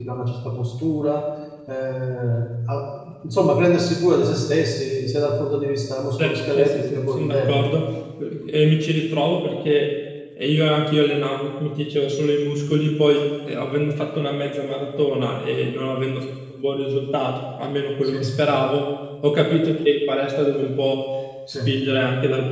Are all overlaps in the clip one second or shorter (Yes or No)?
No